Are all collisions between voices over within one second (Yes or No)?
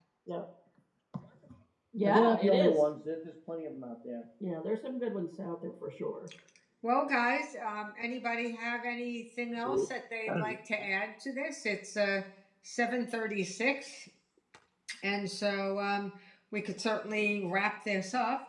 Yes